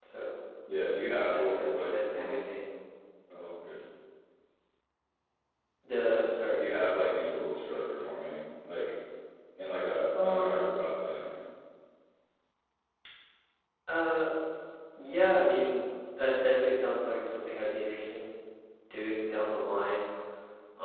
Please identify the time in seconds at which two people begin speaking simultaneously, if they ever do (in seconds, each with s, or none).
1.3 s